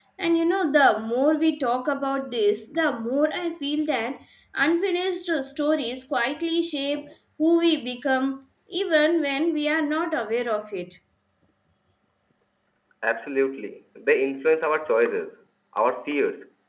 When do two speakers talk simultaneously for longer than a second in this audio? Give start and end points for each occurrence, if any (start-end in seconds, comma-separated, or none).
none